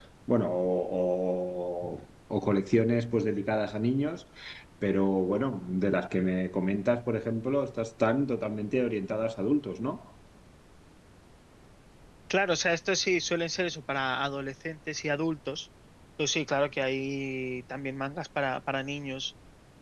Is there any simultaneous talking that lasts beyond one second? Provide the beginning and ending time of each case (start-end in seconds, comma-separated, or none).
none